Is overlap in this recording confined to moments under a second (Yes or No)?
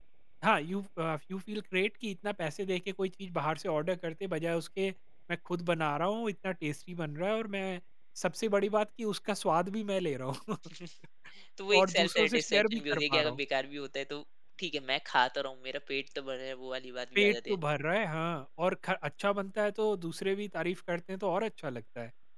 No